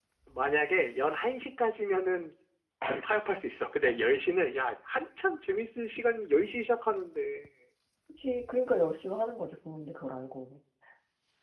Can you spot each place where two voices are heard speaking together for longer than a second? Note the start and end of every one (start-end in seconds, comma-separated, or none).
none